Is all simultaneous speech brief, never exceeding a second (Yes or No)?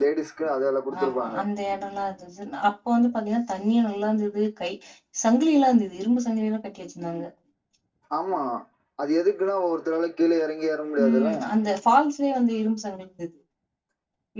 Yes